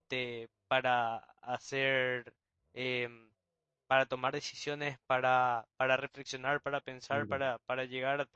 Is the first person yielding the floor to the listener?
No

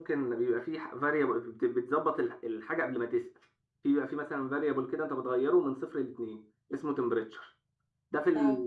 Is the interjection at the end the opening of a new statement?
No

